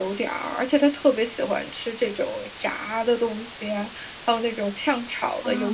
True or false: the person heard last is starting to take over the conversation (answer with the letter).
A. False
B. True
A